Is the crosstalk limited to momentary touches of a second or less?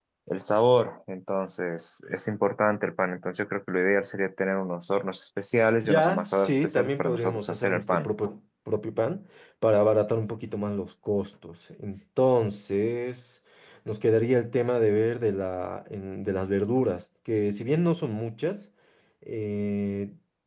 No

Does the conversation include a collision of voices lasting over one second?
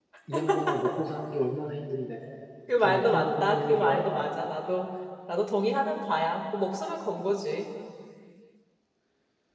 Yes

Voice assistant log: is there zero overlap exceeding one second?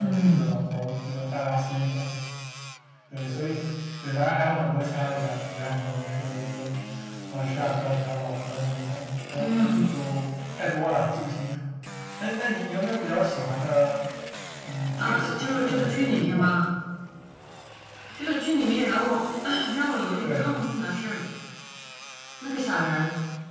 No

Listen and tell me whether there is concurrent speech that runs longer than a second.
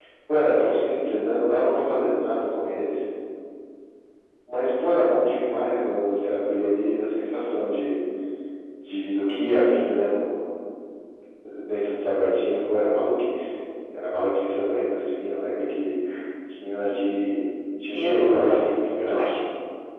Yes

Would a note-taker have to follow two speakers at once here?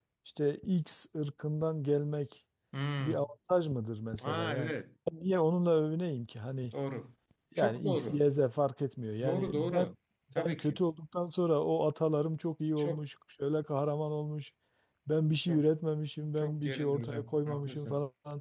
Yes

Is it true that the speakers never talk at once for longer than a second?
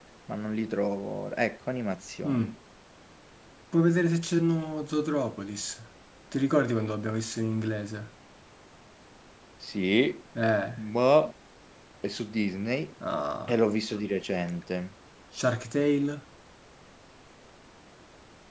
Yes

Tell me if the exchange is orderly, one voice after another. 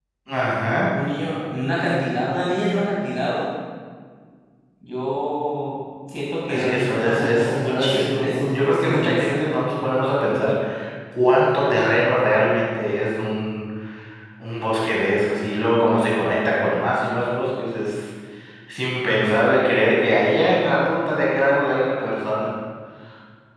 No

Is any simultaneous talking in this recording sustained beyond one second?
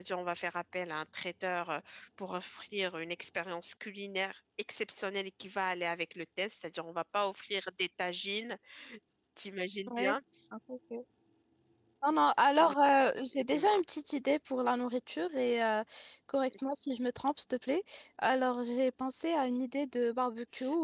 No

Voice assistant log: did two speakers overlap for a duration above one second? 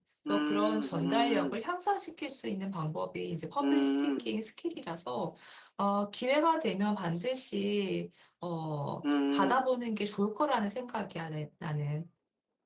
Yes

